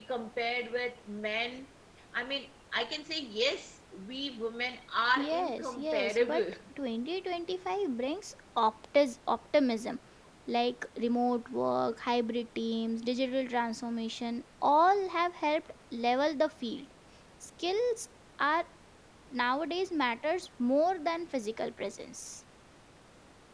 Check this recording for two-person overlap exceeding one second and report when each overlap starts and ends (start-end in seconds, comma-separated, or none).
5.2-6.4